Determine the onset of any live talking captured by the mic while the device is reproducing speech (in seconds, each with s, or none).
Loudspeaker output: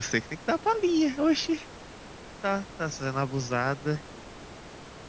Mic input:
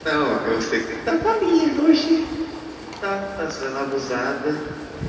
none